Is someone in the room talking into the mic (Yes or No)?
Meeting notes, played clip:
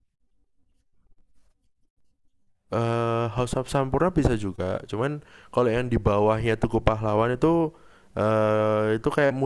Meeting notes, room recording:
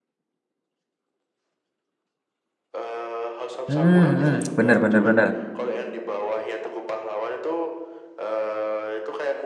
Yes